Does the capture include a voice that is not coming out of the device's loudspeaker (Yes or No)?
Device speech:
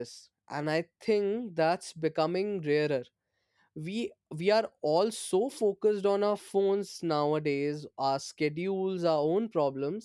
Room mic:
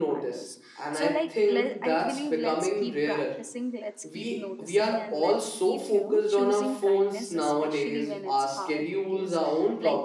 Yes